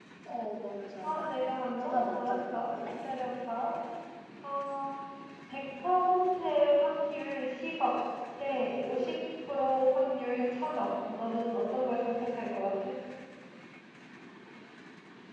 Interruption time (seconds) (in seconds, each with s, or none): 1.0 s